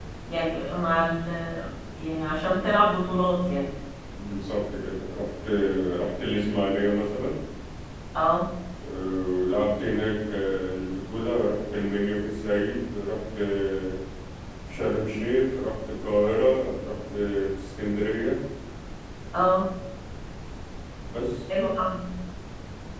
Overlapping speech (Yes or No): No